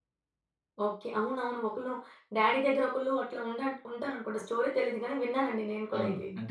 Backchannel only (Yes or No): No